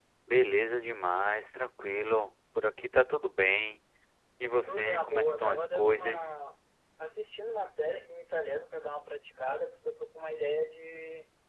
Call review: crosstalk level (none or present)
present